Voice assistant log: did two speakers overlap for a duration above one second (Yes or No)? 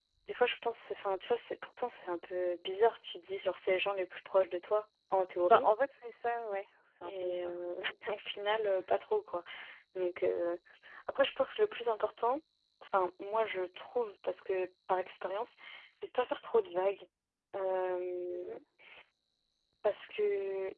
No